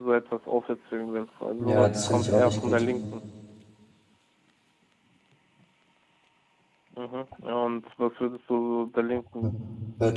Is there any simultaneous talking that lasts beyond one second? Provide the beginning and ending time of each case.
1.6-2.8

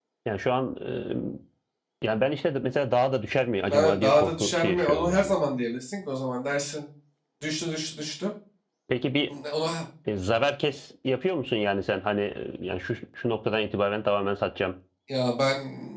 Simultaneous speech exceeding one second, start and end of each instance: 3.7-5.3

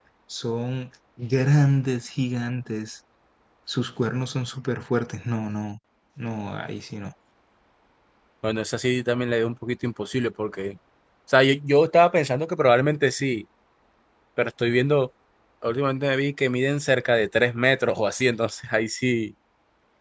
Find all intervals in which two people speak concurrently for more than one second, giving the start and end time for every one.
none

